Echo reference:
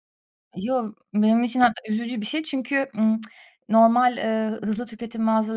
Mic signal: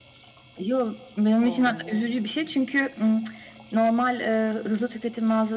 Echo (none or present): present